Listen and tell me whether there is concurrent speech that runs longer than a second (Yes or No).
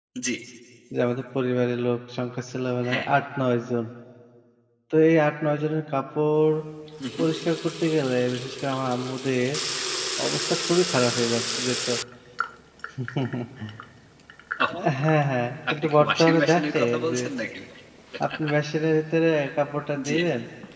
Yes